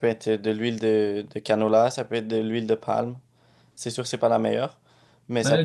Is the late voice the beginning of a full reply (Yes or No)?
Yes